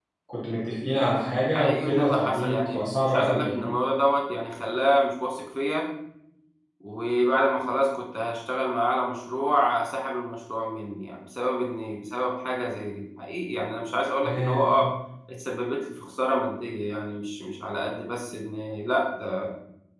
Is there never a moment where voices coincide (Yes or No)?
No